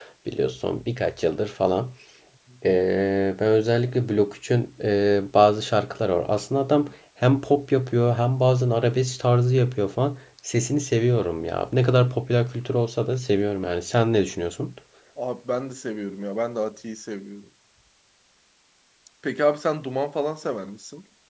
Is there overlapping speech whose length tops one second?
No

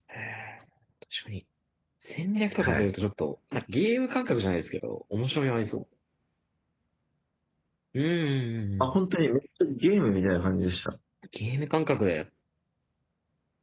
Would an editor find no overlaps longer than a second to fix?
Yes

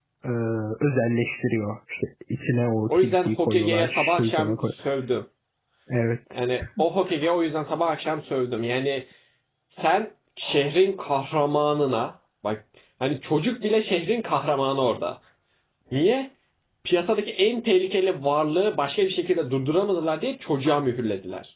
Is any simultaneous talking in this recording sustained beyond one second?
Yes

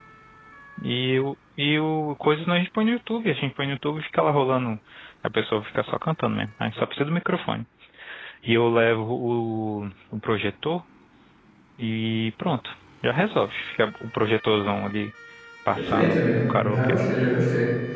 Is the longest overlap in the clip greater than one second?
Yes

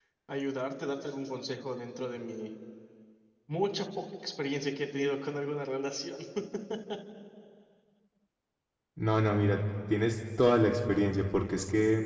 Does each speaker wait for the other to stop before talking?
Yes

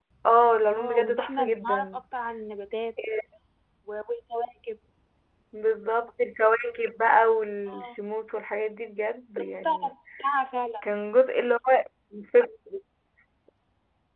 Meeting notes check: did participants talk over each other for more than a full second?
Yes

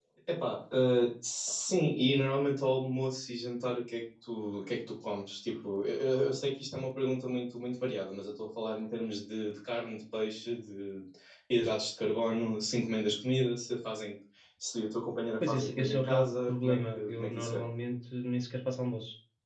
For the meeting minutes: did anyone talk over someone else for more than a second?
Yes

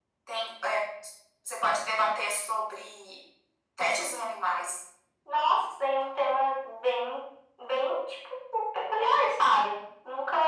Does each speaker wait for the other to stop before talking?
Yes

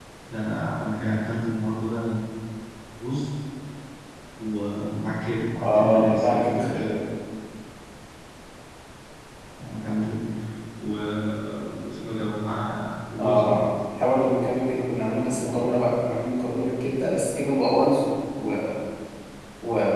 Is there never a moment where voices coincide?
No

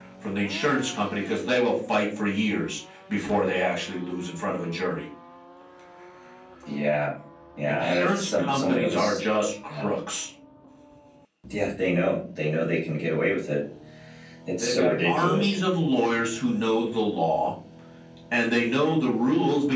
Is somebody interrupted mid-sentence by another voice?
Yes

